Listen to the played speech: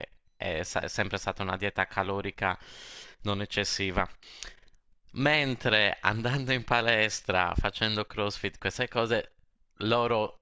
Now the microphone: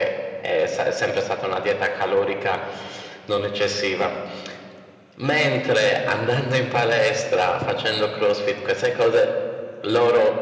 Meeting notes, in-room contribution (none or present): none